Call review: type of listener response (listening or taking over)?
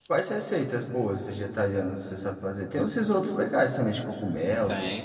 taking over